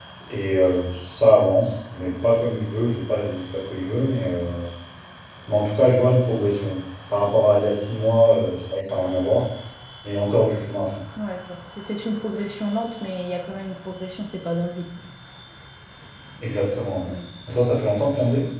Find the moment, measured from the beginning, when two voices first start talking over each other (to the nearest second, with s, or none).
none